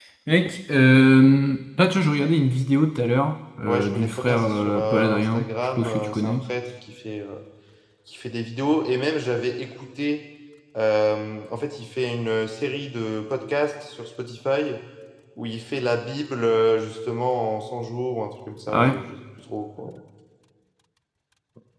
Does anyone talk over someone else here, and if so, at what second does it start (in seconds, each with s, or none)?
3.6 s